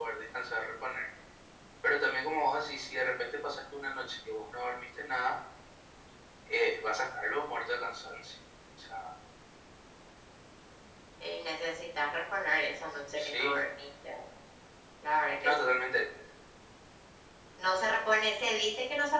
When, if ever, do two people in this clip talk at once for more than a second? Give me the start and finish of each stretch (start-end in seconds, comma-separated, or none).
none